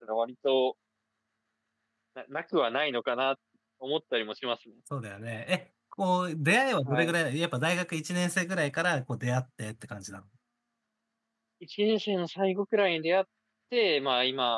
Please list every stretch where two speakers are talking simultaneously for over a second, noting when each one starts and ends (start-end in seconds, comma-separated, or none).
none